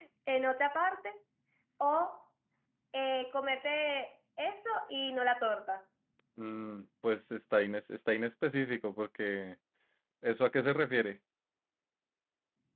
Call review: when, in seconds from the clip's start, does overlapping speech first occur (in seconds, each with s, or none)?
none